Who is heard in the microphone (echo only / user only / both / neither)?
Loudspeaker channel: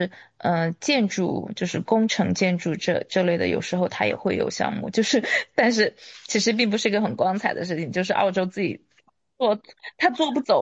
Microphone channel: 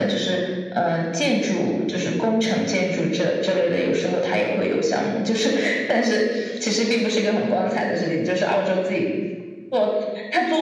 echo only